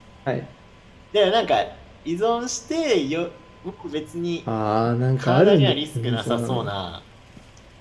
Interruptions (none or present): present